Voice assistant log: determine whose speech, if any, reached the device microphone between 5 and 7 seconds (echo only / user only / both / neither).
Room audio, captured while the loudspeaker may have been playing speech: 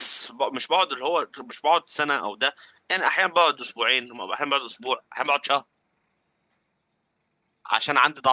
user only